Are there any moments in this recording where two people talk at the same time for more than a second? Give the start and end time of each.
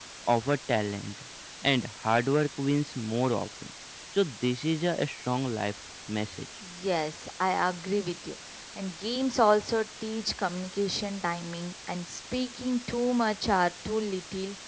none

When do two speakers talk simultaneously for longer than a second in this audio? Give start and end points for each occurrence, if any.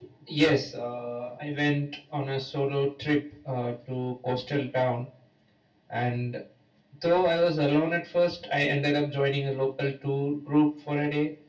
none

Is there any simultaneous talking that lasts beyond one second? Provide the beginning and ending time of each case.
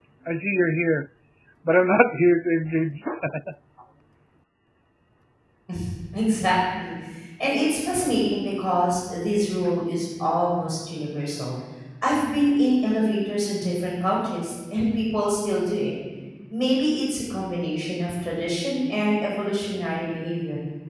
none

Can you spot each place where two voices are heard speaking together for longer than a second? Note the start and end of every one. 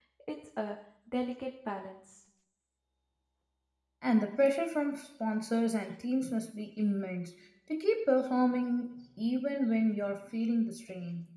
none

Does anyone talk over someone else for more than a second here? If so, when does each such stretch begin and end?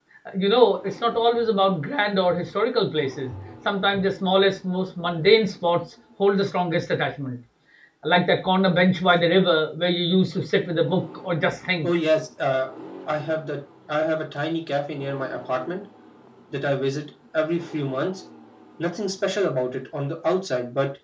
none

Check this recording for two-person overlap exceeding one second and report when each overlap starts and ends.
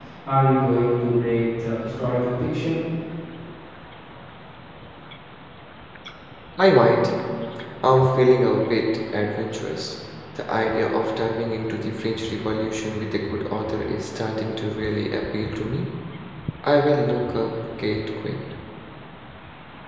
none

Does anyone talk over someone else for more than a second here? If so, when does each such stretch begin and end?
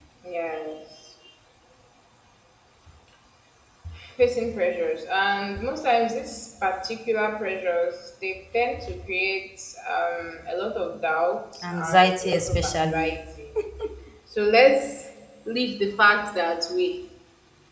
11.6-13.1

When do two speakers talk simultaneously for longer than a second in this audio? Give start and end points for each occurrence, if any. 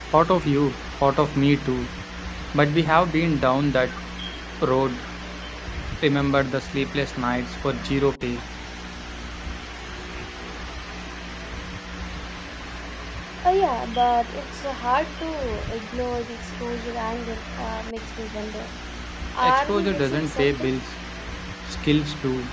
19.4-20.7

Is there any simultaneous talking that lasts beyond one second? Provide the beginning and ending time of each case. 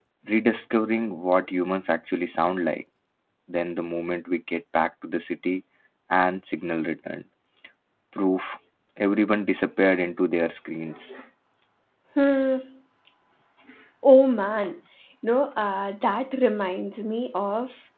none

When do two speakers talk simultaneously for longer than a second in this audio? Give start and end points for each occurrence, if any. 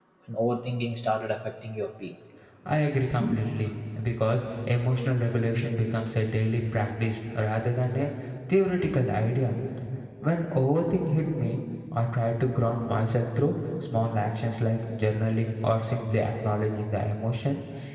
none

